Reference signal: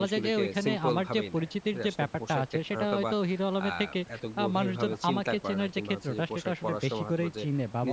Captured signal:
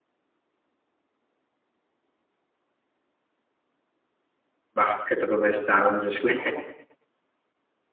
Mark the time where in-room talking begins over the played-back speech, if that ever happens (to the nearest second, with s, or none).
5 s